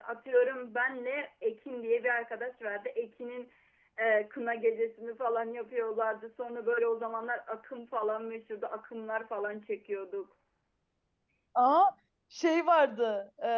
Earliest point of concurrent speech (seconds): none

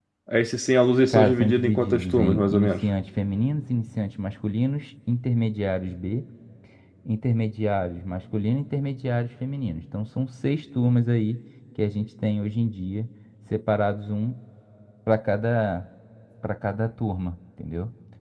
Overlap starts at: 1.1 s

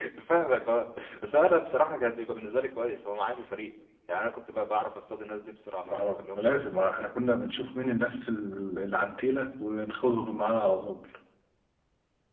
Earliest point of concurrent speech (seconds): 5.9 s

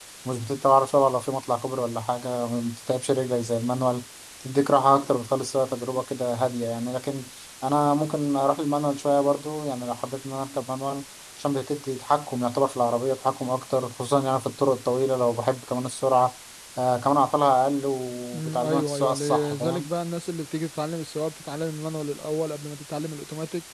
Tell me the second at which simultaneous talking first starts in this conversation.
18.3 s

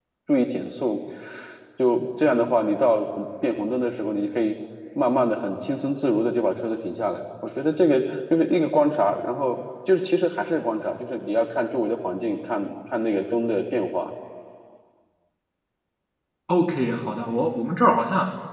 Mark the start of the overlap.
none

